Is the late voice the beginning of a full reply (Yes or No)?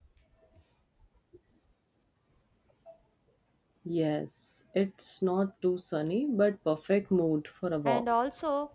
Yes